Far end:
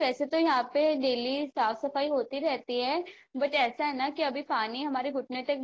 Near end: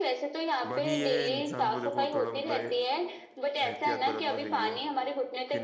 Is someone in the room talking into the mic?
Yes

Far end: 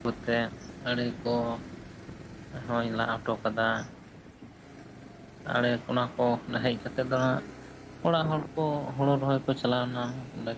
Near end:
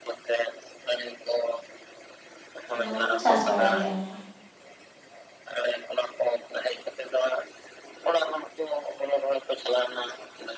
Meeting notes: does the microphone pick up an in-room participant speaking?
Yes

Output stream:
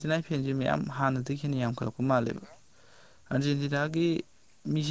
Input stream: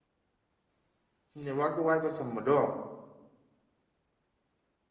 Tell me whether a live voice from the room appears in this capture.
Yes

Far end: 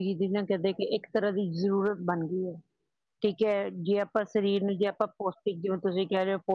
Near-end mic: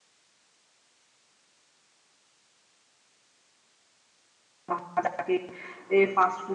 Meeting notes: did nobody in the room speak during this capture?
No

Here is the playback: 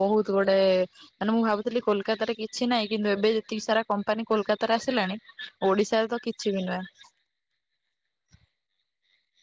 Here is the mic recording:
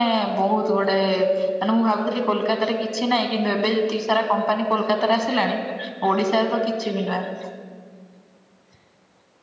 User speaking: No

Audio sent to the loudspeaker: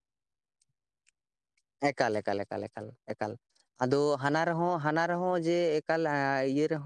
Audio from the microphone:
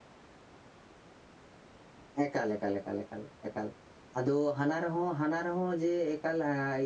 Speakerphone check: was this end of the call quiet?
Yes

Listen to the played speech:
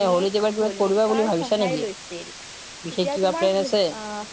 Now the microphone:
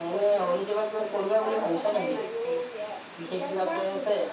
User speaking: Yes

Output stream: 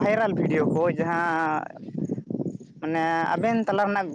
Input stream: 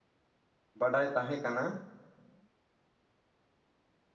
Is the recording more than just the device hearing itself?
Yes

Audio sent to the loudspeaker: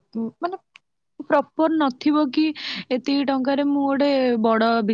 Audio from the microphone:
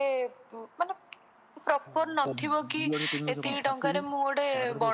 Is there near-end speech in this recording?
Yes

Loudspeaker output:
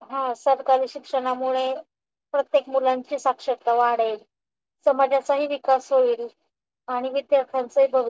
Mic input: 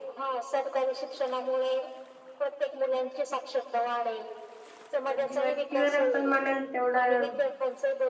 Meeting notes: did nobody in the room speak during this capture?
No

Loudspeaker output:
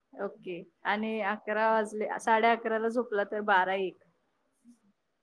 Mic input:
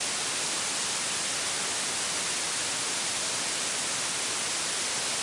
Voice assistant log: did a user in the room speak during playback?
No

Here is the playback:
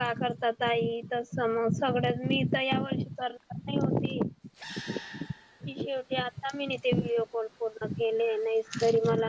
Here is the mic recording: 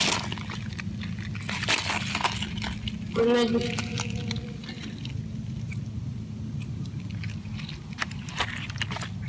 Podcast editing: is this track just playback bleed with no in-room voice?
No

